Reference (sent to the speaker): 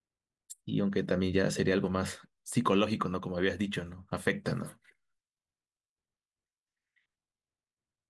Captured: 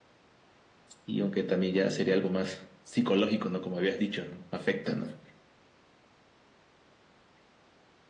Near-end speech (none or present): none